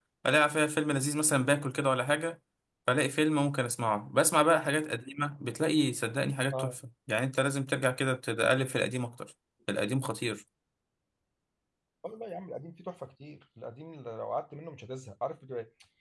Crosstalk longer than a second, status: none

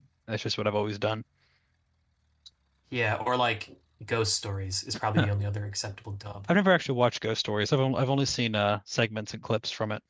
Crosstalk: none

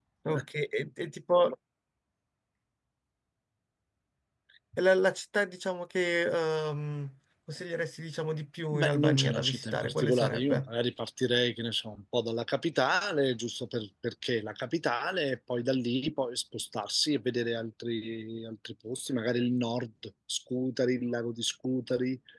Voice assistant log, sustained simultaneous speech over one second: present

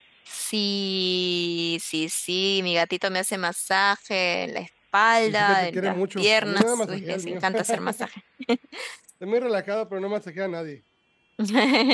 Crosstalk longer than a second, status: present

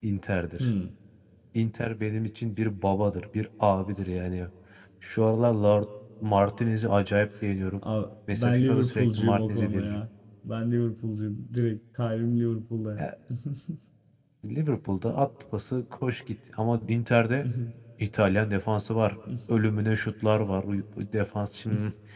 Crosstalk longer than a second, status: present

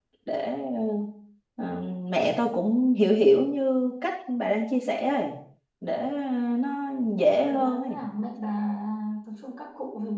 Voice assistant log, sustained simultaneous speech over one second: none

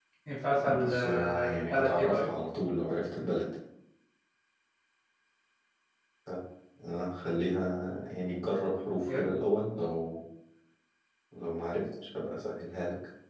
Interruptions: present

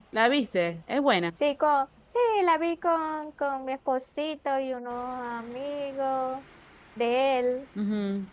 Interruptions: none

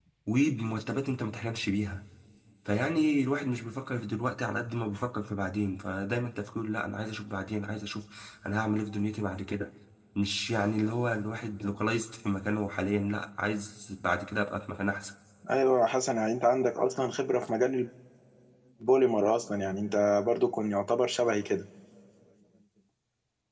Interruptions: none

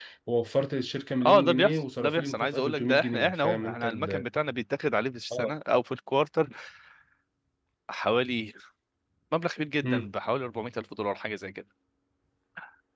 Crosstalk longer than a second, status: present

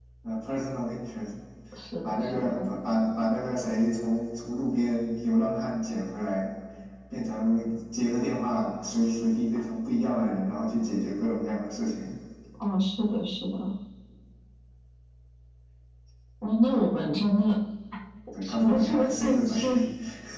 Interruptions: present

